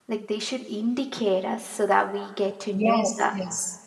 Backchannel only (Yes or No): No